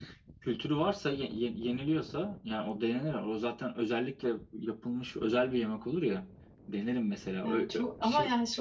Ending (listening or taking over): taking over